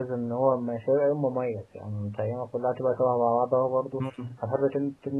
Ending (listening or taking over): listening